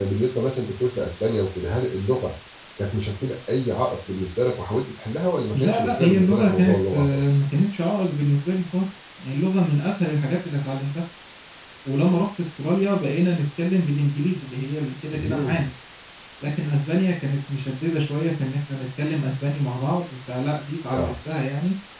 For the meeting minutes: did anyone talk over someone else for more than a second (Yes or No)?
Yes